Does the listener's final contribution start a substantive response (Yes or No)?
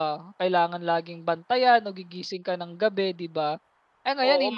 Yes